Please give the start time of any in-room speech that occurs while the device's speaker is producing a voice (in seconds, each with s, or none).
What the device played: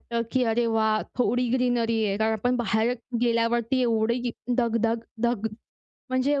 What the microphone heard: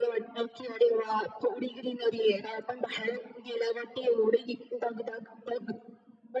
none